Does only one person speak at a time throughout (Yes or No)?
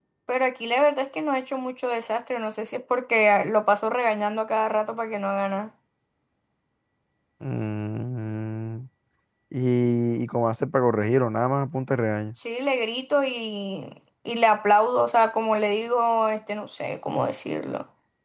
Yes